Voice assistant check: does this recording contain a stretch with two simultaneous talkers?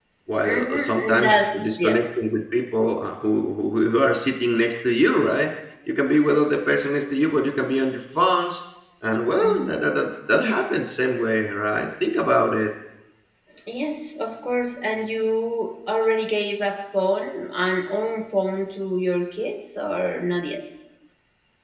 Yes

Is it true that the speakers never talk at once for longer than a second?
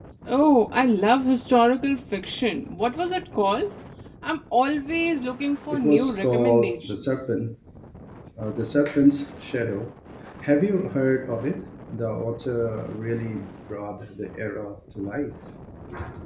No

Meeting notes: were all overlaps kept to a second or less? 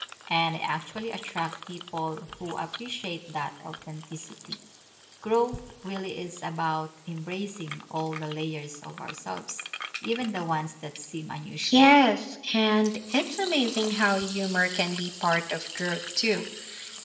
Yes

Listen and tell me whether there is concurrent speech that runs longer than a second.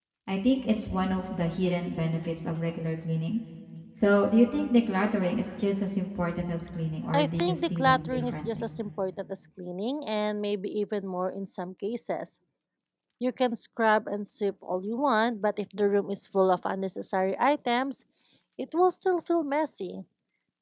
Yes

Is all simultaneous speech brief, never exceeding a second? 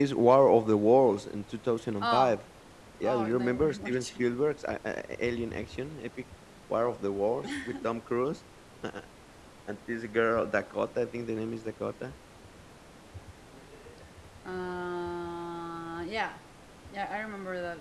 No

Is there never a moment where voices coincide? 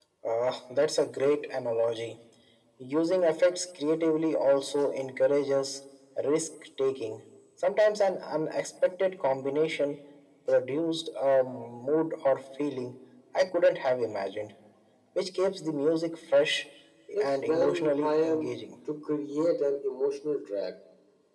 No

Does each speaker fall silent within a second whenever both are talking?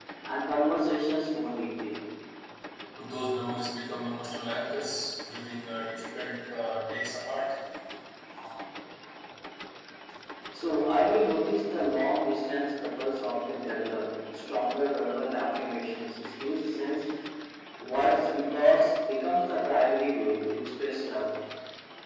Yes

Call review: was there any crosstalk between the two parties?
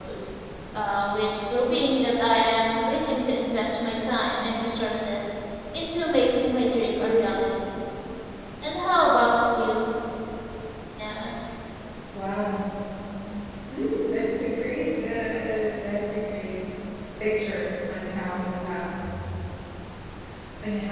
No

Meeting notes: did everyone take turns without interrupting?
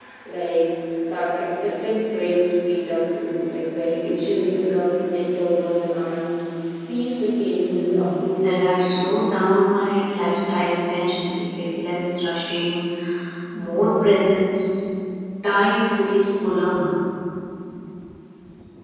No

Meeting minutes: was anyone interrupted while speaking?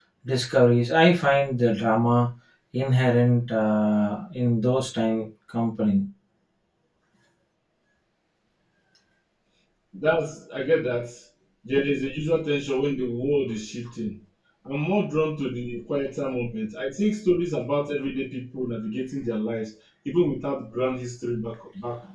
No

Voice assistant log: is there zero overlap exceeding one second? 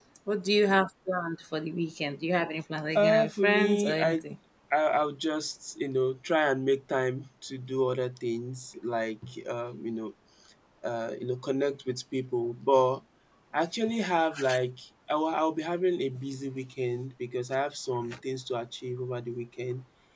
No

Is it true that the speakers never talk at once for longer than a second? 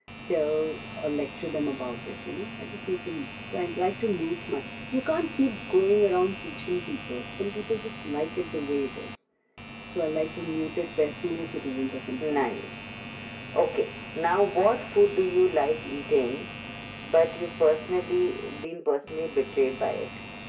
Yes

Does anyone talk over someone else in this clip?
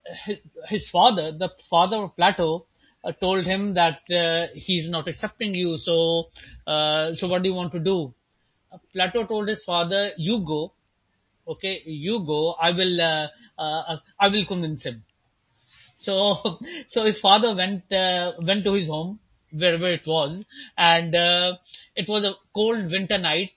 No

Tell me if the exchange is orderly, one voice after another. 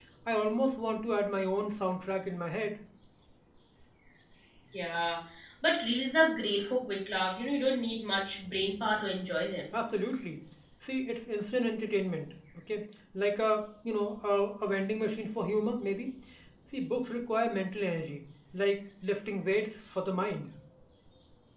Yes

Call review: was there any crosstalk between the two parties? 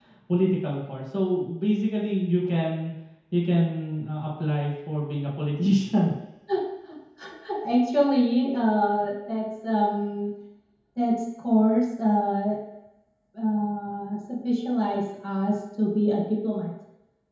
No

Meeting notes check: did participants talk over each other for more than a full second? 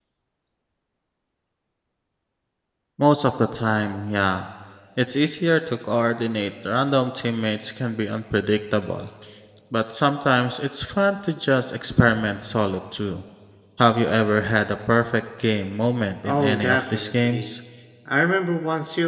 Yes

